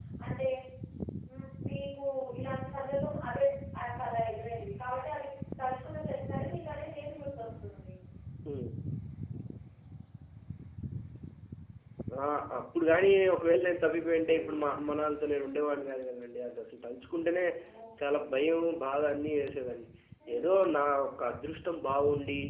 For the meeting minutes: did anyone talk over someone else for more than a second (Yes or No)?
No